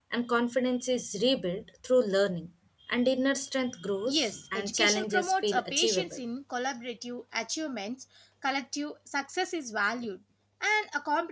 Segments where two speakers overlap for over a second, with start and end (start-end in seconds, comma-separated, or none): 4.1-6.2